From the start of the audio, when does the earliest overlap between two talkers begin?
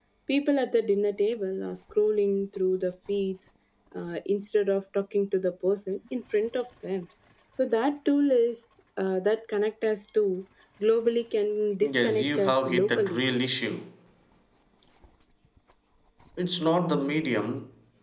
11.8 s

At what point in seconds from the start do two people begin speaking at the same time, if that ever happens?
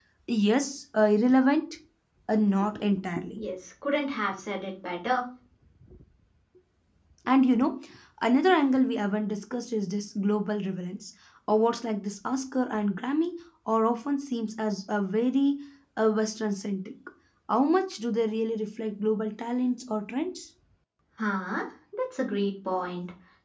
none

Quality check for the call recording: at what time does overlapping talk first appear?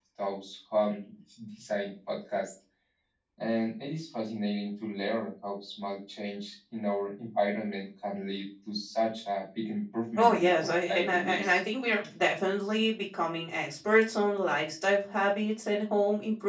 10.2 s

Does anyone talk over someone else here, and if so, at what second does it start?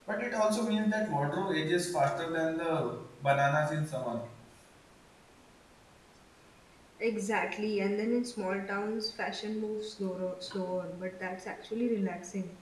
none

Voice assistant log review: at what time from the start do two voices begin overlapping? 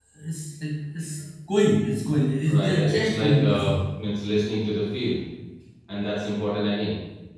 2.5 s

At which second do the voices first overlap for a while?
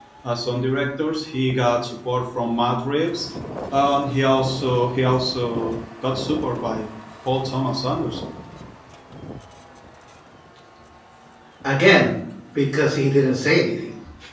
none

